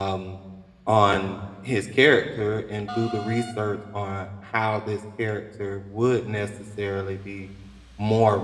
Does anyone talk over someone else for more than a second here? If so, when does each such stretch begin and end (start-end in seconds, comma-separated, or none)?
none